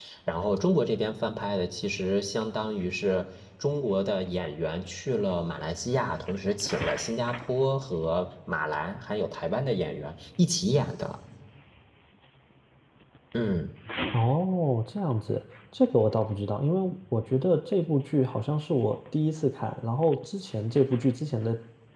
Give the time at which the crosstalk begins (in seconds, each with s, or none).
none